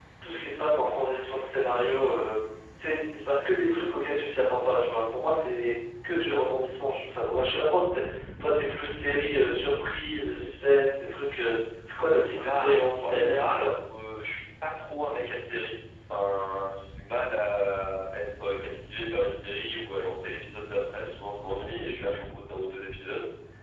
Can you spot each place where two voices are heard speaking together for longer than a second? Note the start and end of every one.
12.4-13.7

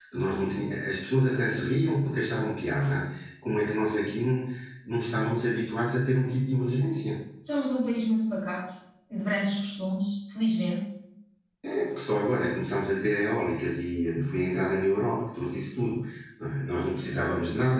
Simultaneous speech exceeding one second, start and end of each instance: none

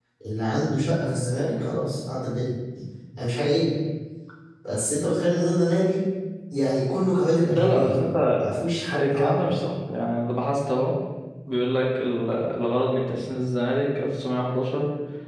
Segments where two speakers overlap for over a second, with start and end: none

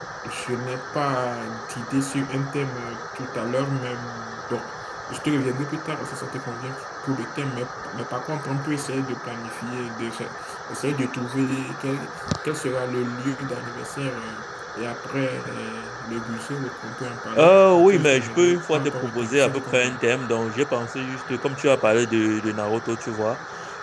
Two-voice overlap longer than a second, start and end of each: 17.4-20.0

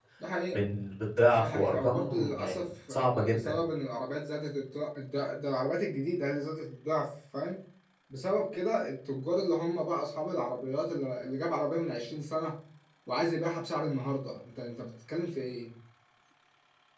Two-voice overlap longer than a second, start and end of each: 1.4-3.6

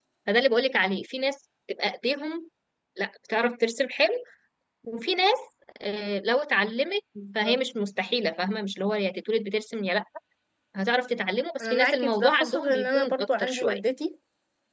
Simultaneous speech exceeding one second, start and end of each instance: 11.6-13.8

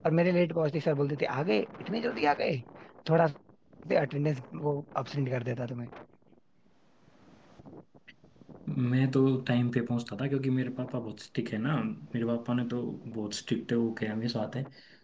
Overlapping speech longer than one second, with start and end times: none

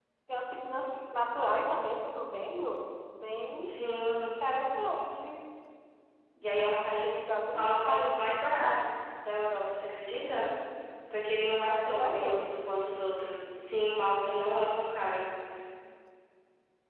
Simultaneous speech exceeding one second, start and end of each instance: 6.7-8.3

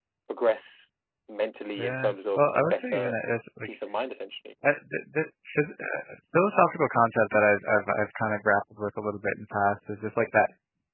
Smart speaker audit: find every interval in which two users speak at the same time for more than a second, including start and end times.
1.8-3.1

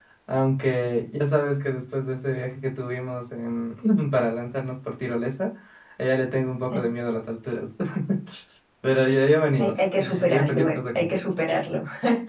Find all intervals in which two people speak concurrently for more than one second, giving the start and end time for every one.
9.6-11.2

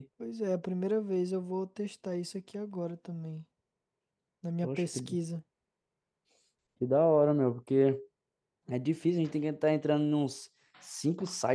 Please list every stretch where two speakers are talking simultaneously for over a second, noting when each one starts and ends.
none

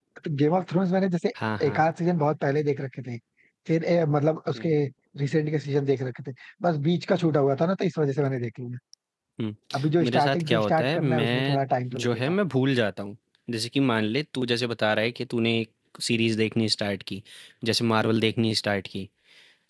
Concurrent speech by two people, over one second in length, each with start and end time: 10.0-11.6

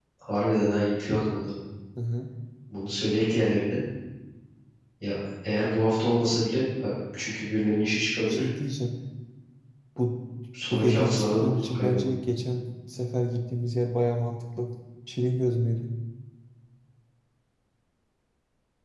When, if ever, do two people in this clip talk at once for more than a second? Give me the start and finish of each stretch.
10.7-12.0

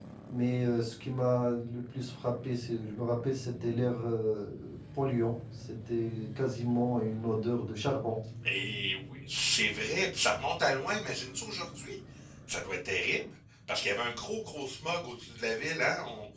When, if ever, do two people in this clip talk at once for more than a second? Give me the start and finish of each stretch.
none

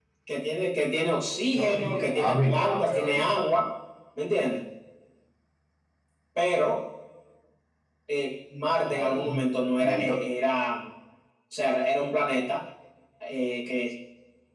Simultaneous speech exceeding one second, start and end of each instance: 1.6-3.3

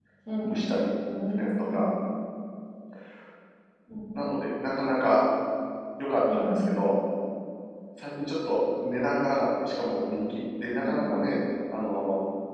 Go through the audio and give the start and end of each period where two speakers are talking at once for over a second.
none

